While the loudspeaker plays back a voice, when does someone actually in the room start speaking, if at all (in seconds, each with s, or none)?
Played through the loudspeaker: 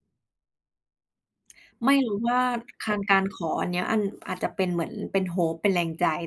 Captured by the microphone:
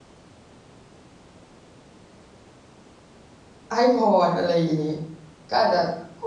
3.7 s